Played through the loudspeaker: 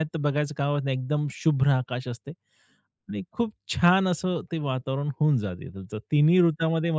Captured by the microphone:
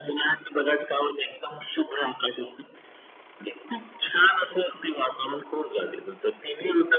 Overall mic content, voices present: echo only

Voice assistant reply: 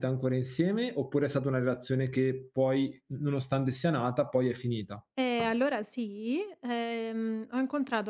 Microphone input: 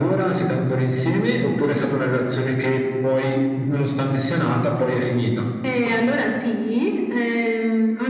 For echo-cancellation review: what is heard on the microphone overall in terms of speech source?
echo only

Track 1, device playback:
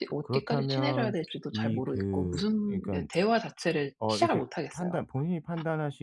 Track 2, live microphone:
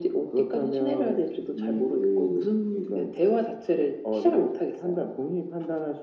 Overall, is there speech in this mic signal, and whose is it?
echo only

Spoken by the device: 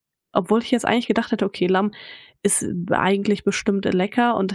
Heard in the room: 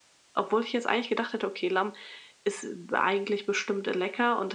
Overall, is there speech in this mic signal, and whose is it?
echo only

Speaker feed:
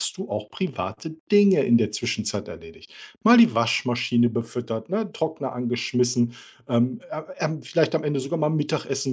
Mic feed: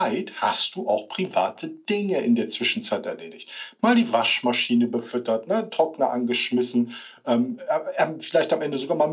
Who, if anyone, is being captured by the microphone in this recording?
echo only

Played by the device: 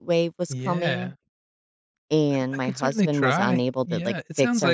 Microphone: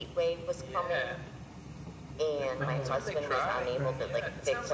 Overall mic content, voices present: both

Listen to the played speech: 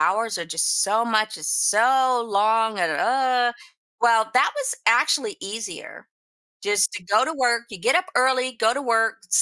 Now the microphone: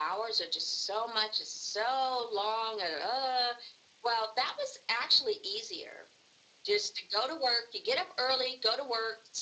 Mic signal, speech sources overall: echo only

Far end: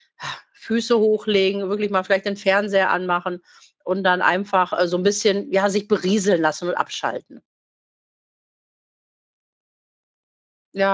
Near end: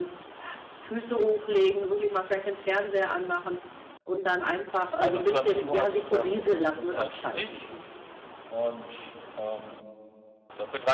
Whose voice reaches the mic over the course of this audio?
both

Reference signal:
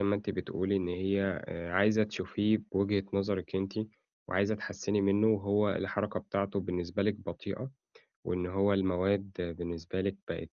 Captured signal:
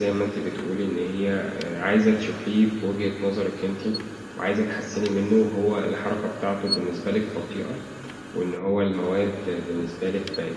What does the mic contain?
echo only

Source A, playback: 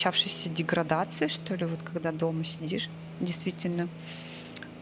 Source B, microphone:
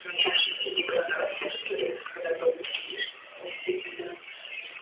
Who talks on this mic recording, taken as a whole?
echo only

